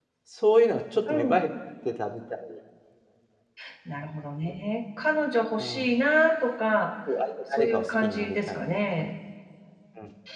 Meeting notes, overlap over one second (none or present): present